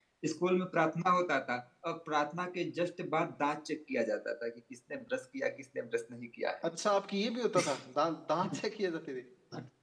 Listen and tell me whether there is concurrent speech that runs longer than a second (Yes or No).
No